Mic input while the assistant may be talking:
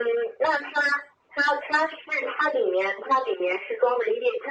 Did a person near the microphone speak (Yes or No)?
No